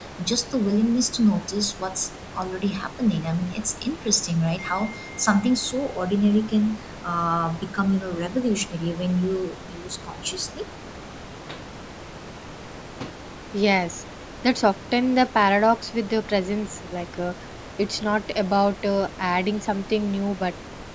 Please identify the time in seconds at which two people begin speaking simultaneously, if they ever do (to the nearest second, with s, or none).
none